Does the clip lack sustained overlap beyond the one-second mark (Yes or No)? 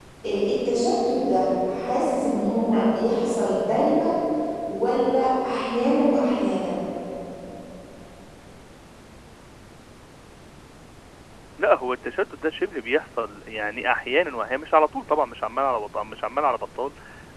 Yes